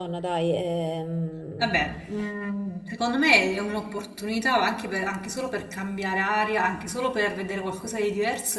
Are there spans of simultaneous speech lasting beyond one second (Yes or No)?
No